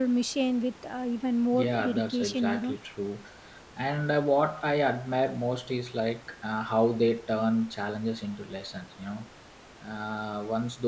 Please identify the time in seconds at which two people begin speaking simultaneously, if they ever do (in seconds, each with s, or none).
1.5 s